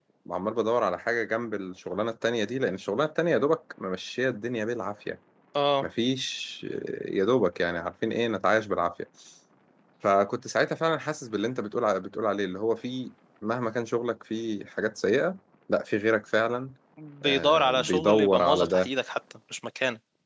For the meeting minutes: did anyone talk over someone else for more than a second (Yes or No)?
Yes